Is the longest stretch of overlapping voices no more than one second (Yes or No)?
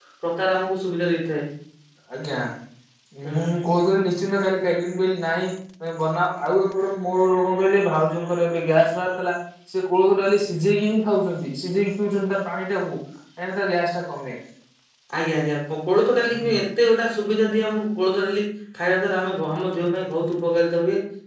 Yes